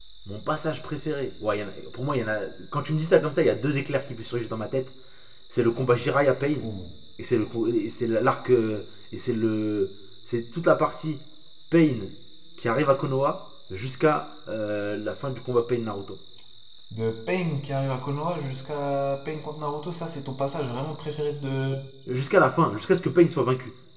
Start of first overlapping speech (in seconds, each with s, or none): none